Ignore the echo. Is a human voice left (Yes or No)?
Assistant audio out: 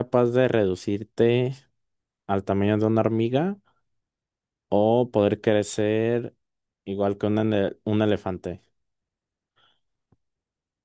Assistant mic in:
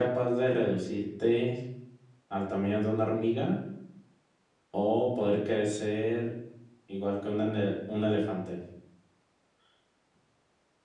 No